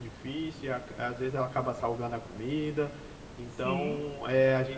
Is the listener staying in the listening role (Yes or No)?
Yes